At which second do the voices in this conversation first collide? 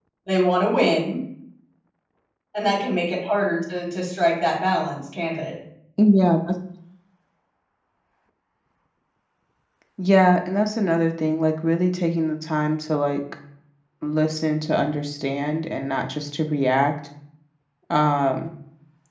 none

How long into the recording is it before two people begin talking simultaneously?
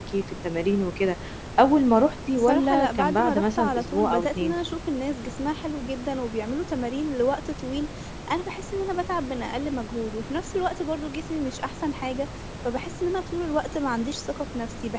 2.3 s

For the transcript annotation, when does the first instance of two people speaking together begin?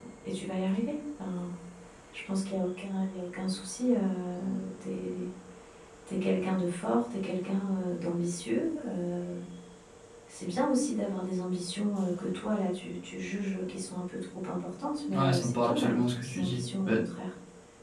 15.1 s

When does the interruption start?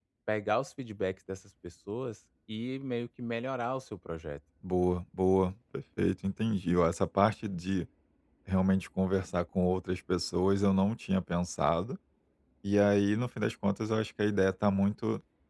none

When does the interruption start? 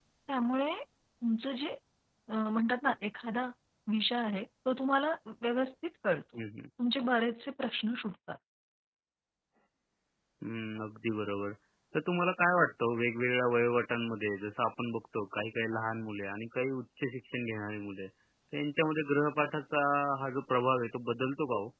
none

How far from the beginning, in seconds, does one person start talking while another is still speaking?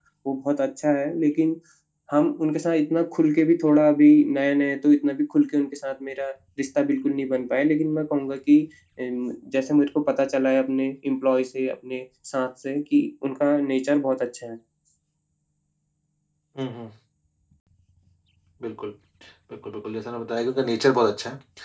none

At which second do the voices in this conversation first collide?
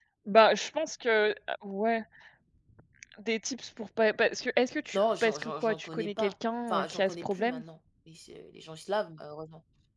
4.9 s

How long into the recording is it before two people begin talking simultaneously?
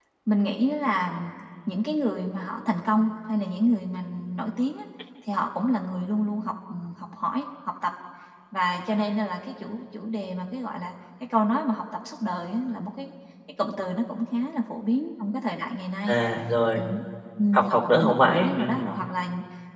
17.5 s

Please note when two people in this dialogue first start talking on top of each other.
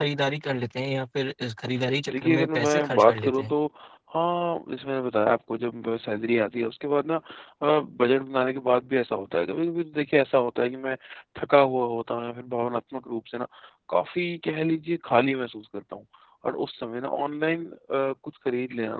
2.1 s

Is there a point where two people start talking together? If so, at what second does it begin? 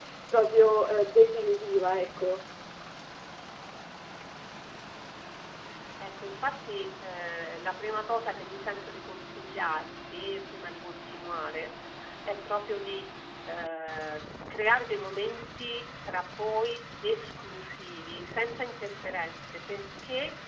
none

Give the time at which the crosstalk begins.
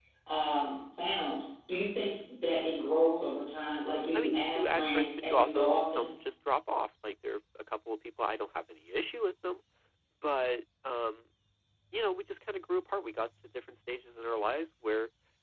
4.1 s

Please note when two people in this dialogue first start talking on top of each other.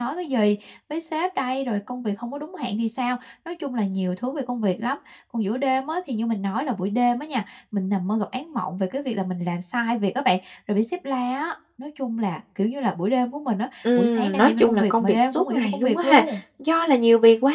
13.8 s

